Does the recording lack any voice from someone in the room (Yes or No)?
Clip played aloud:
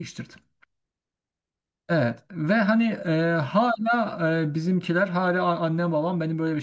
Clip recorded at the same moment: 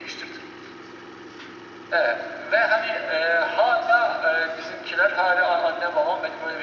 Yes